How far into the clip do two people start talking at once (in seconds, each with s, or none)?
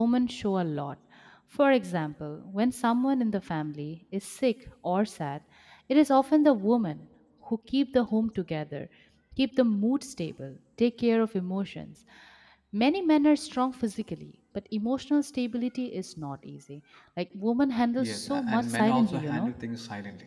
18.0 s